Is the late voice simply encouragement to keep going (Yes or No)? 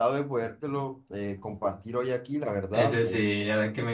No